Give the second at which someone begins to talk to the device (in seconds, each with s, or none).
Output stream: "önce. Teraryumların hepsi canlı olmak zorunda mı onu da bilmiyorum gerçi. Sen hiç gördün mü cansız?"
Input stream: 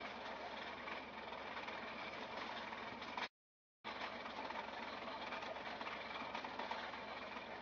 none